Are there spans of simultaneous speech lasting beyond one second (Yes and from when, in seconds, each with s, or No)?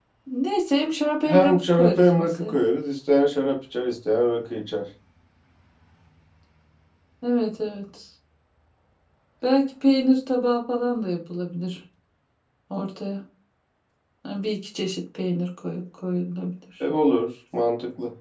Yes, from 1.3 s